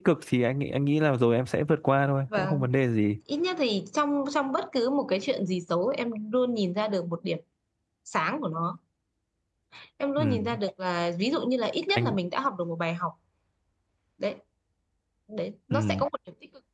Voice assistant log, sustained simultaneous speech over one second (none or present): none